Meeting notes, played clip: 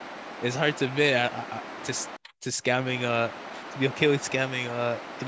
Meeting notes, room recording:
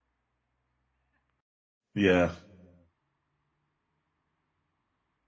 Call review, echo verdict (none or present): none